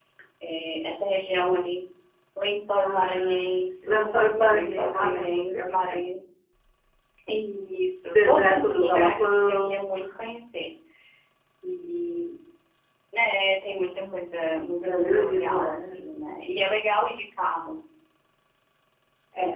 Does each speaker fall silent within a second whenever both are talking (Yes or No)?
No